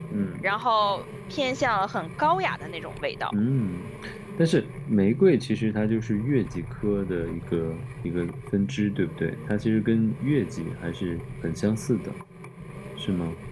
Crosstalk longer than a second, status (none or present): none